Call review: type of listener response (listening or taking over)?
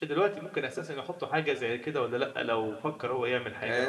taking over